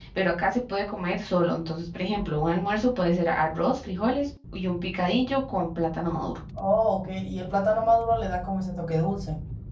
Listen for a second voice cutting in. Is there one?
No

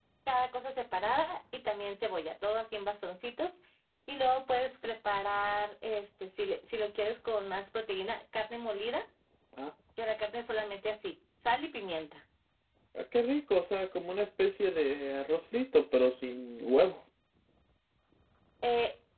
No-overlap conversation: Yes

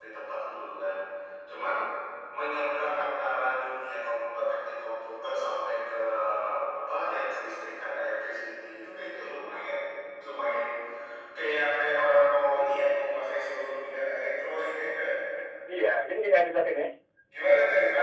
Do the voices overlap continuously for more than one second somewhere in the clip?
No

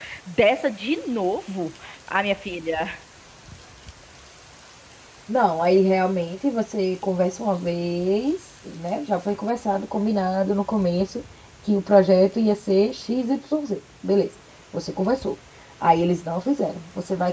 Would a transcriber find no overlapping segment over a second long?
Yes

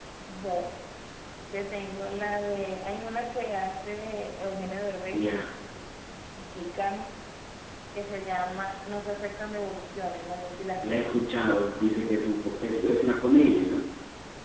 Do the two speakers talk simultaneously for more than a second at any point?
No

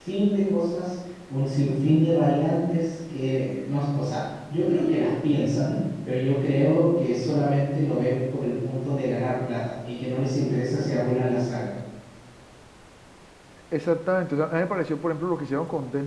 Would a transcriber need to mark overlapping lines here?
No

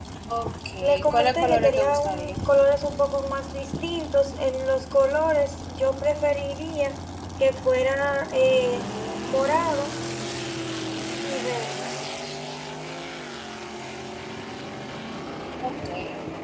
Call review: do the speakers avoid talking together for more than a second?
No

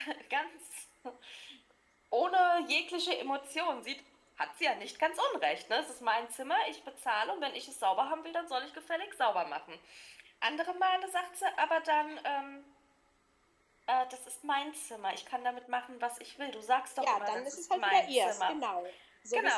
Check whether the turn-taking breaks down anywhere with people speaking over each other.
Yes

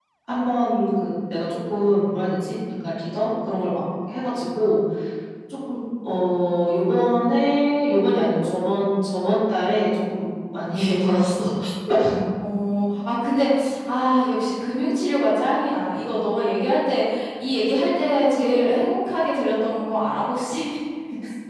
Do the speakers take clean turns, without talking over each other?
Yes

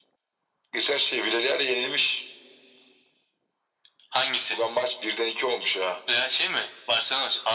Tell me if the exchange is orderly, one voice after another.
Yes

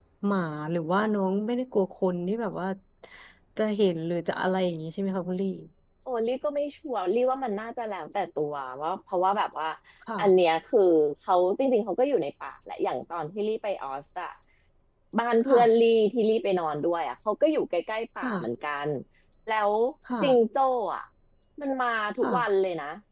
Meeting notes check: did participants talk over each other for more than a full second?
No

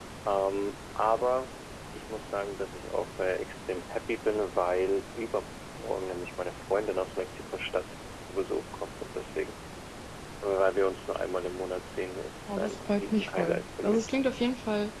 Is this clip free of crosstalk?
No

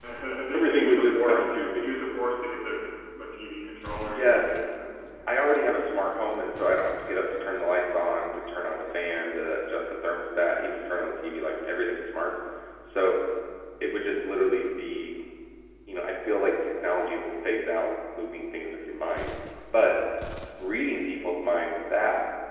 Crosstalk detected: Yes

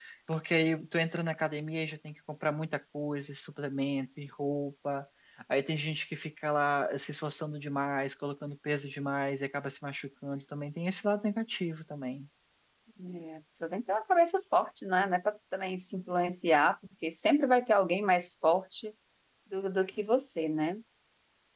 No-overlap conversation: Yes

